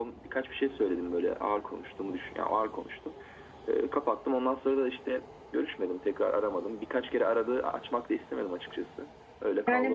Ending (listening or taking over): taking over